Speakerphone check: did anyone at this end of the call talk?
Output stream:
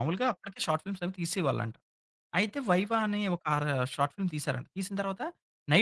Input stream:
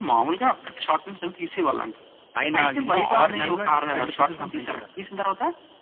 Yes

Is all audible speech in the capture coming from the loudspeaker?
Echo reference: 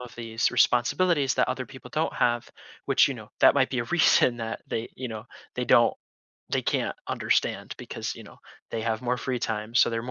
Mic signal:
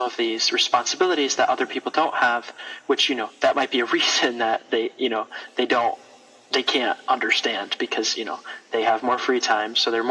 Yes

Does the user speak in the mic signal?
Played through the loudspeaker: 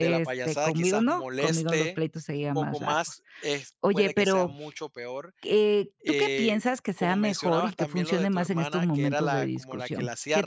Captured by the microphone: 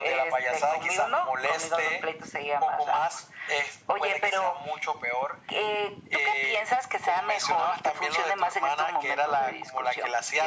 No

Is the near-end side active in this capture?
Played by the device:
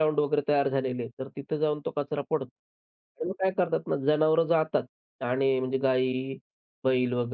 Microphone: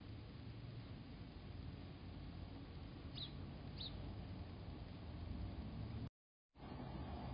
No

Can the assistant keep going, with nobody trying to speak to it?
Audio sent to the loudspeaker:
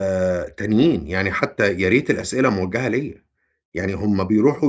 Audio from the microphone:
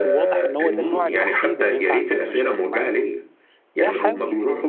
No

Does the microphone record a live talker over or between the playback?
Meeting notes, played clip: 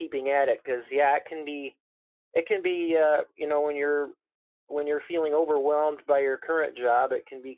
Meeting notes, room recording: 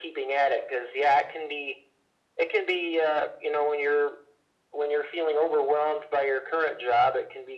No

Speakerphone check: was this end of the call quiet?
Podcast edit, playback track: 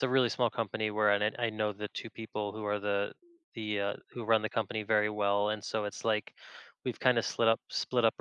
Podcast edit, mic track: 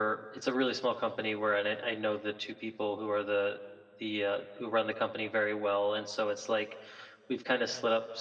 Yes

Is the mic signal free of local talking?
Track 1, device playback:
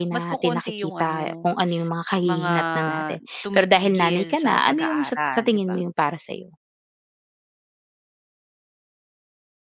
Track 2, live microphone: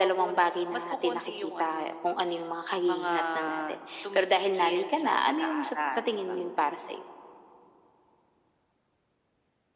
Yes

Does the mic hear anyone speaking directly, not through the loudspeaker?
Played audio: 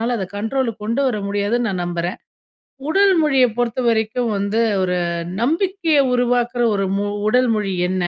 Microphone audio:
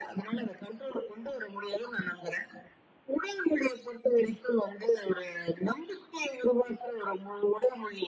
No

